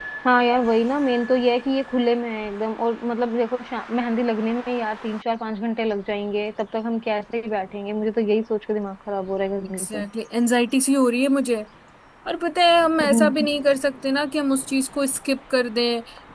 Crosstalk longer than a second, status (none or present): none